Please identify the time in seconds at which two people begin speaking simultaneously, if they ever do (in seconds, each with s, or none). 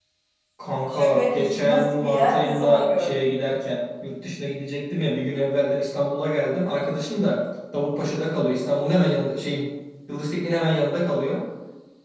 0.9 s